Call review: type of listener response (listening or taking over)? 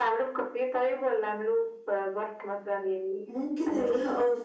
taking over